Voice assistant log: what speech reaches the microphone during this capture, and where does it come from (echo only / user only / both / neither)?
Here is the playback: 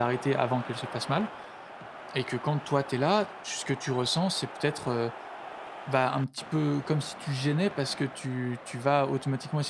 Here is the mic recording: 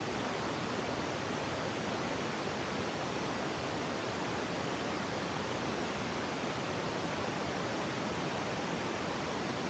neither